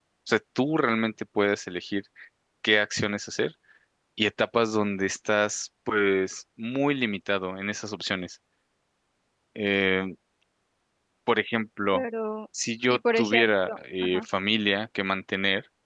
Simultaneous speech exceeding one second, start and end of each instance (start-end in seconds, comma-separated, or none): 12.9-14.2